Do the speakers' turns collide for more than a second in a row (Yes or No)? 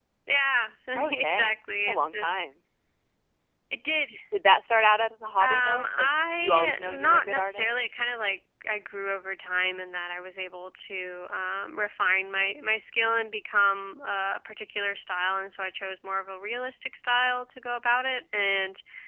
Yes